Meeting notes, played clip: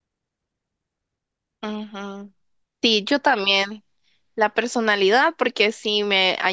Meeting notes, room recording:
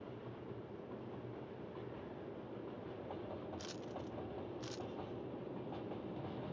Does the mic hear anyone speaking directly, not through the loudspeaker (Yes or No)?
No